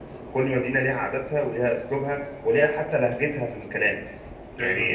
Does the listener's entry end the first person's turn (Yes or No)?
No